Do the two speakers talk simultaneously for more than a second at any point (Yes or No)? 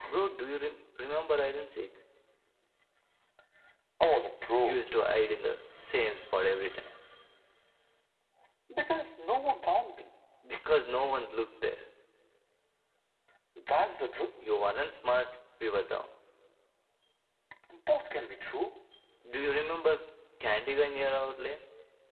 No